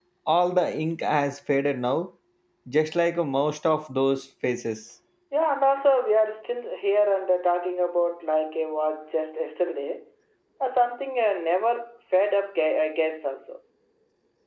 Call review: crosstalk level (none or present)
none